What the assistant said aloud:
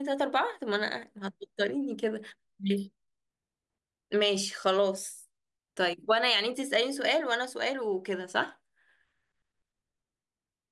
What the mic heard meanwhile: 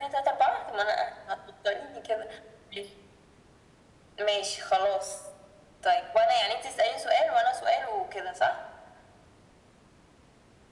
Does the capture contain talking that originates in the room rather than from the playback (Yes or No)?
No